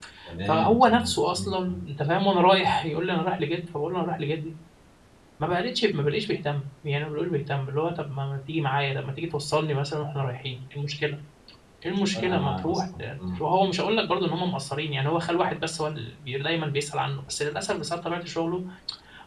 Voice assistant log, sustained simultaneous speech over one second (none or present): present